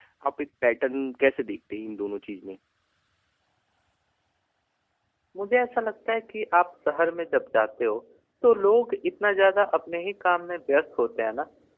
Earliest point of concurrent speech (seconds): none

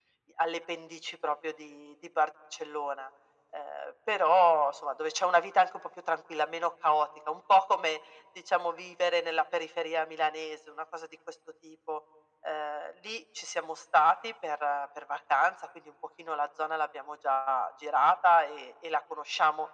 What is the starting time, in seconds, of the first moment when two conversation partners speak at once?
none

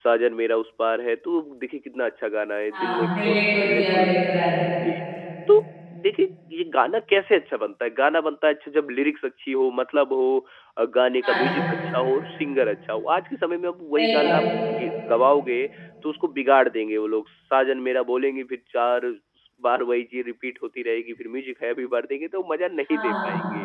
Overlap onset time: 3 s

